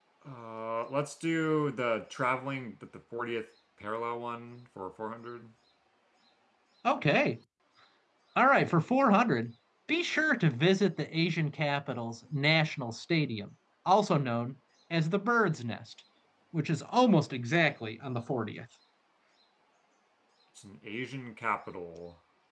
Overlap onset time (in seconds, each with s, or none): none